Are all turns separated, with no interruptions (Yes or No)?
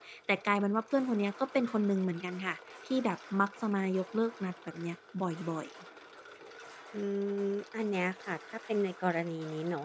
Yes